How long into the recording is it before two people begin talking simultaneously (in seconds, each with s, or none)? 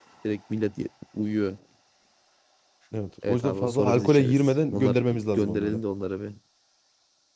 3.3 s